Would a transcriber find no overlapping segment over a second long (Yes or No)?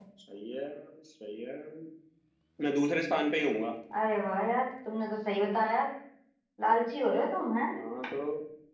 Yes